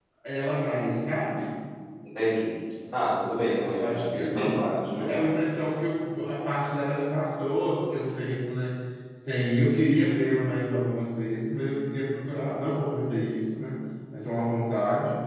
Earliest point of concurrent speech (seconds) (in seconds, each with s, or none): 3.8 s